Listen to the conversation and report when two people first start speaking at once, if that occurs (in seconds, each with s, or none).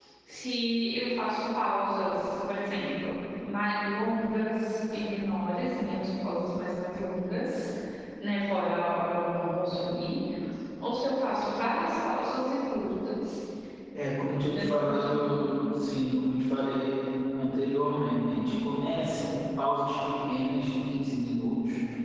14.3 s